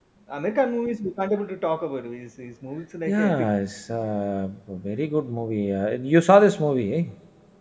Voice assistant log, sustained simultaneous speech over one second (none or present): none